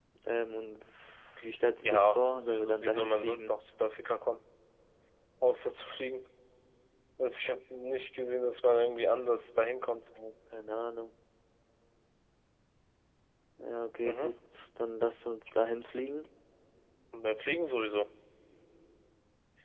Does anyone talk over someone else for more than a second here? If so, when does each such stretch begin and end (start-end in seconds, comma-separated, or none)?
1.8-3.5